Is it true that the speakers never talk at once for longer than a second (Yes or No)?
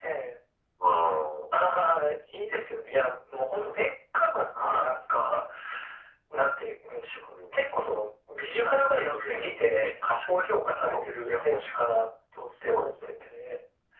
No